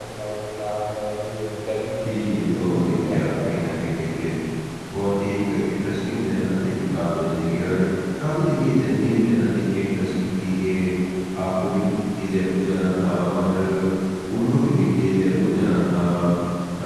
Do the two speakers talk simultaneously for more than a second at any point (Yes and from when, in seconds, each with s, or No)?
Yes, from 2.0 s